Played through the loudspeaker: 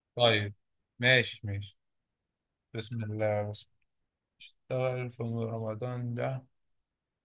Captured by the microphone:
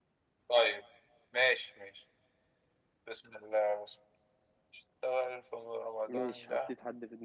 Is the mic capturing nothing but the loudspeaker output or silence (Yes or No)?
No